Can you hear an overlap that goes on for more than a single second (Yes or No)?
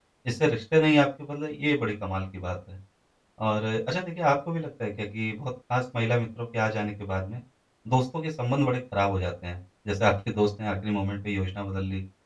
No